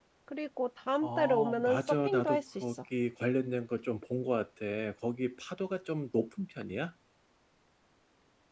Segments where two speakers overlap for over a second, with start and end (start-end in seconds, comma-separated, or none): 1.0-2.8